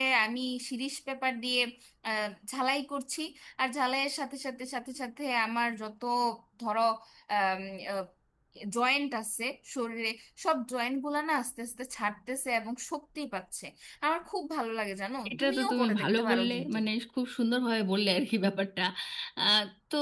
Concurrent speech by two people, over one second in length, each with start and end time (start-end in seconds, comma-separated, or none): 15.3-16.8